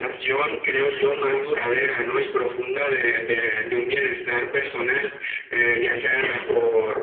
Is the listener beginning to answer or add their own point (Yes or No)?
No